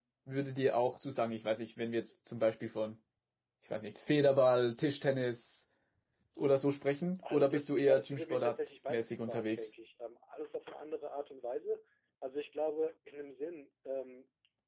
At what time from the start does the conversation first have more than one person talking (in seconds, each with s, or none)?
7.2 s